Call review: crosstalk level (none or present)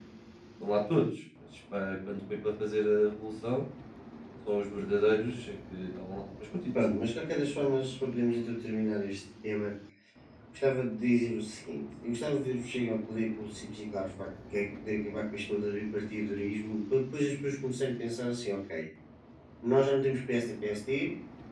none